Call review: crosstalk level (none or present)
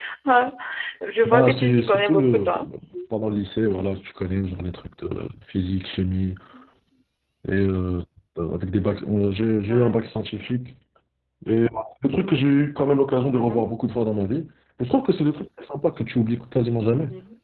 present